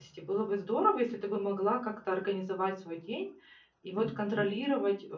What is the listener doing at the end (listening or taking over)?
listening